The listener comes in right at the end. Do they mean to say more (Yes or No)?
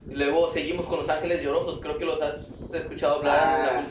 Yes